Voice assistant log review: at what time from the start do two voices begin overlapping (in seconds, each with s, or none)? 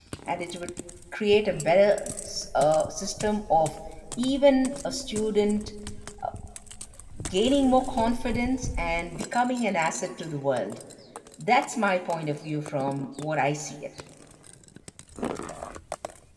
none